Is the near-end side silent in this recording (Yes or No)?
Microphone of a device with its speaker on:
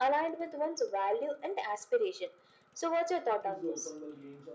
No